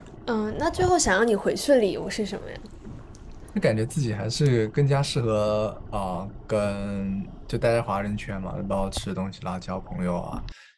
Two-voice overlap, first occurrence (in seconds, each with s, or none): none